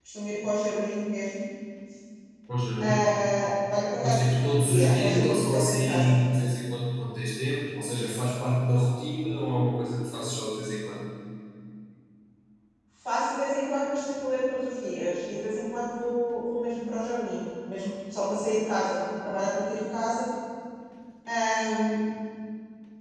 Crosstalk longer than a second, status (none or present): present